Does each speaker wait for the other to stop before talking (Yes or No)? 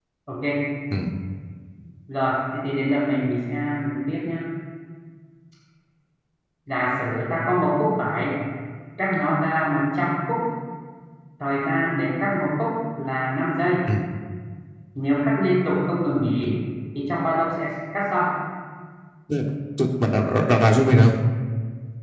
Yes